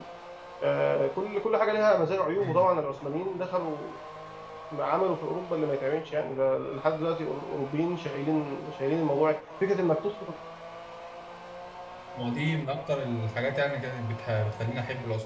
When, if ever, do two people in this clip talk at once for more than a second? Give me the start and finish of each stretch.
none

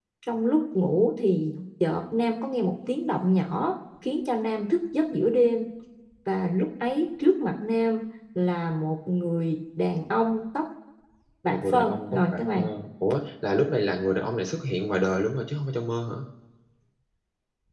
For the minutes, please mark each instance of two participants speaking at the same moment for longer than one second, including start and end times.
11.5-12.7

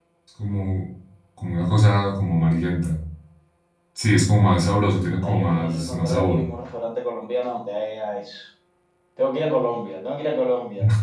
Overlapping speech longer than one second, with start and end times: 5.2-6.4

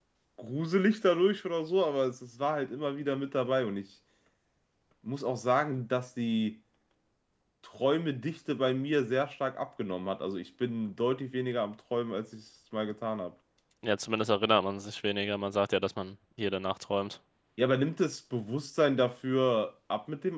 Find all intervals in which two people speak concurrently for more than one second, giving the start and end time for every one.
none

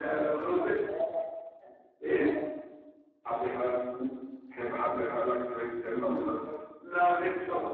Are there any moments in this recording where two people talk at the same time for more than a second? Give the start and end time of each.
none

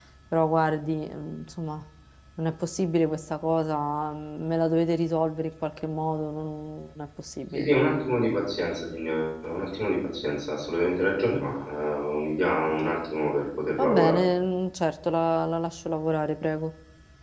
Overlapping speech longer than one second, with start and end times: none

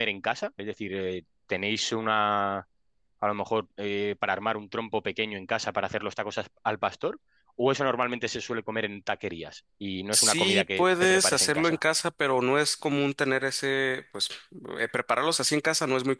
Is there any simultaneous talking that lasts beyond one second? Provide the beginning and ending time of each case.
10.1-11.8

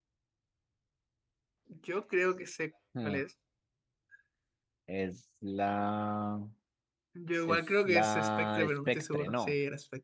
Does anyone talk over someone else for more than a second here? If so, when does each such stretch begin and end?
7.5-9.5

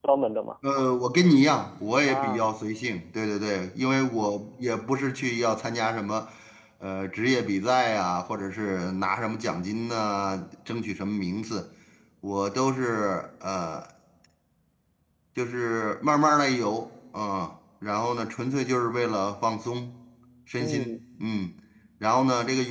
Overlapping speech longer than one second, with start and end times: none

